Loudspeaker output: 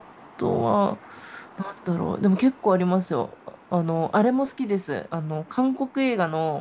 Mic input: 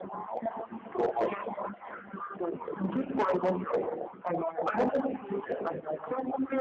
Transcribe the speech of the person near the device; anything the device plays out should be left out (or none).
none